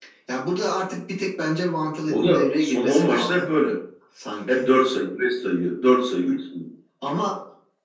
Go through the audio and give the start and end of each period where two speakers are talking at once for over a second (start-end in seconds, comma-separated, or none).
2.1-3.5